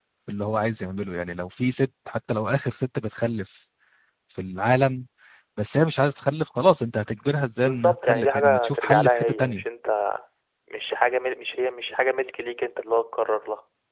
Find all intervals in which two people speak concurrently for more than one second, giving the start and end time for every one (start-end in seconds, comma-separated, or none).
7.6-9.6